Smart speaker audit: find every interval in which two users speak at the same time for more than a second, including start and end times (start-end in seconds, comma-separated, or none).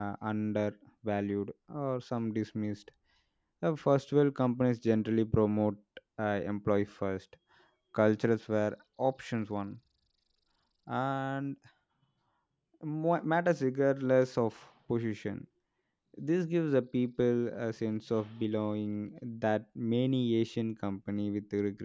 none